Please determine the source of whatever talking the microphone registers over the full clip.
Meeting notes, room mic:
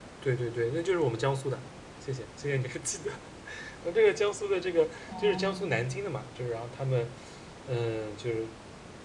both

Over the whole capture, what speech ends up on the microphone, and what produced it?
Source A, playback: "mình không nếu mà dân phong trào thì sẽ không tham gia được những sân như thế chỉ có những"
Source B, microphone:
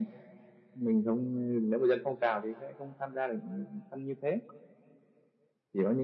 echo only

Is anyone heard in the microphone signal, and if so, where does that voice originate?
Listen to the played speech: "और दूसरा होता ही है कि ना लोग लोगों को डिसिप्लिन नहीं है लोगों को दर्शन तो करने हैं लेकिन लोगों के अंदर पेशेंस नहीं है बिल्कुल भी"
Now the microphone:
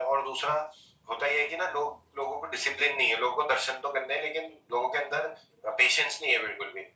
echo only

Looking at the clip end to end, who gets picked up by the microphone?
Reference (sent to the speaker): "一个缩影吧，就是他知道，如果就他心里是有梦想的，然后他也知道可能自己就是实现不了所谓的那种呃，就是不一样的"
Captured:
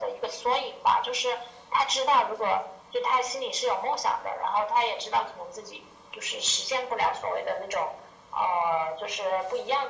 echo only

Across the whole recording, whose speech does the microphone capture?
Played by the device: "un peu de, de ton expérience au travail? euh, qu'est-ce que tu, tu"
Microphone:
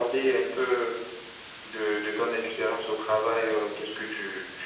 echo only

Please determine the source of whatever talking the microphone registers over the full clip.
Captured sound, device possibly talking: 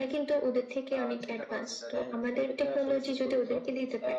both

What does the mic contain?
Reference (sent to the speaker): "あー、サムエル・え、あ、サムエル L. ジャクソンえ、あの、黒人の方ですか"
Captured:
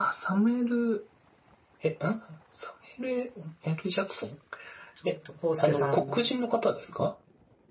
both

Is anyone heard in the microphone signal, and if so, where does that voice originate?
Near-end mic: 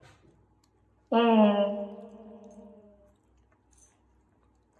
user only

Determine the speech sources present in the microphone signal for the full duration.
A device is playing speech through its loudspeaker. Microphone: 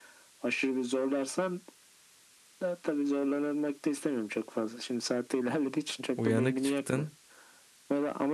both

